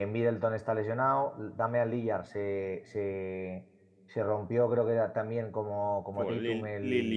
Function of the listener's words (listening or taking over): taking over